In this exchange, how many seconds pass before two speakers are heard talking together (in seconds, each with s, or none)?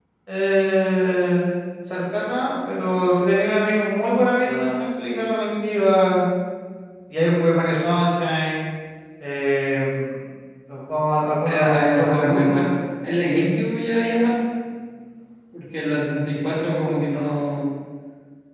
11.4 s